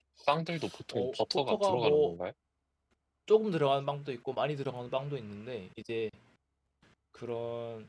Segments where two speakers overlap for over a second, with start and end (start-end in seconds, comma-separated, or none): 0.9-2.1